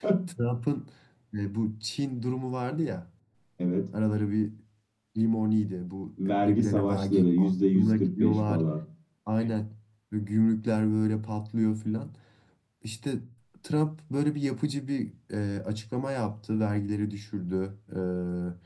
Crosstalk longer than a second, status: present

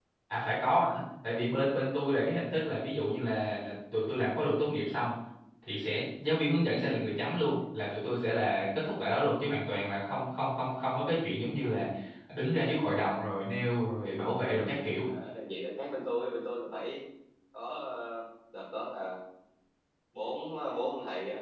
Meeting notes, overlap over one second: none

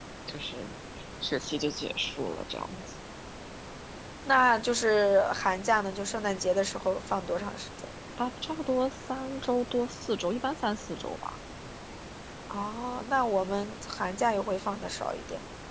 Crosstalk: none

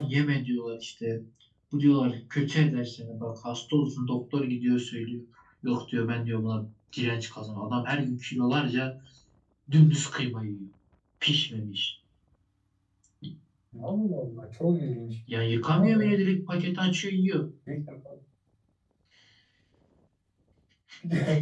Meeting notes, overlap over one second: none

